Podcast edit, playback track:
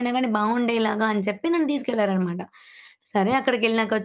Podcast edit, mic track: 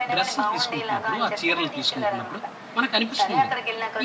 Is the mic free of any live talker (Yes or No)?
No